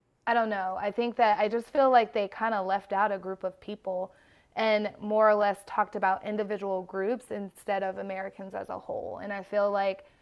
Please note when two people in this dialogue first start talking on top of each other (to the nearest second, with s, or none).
none